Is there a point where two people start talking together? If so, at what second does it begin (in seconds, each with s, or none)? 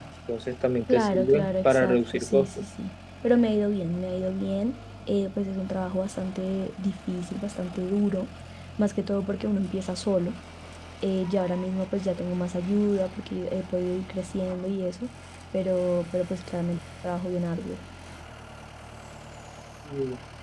0.9 s